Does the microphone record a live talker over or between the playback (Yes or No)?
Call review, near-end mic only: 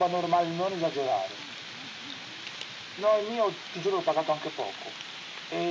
No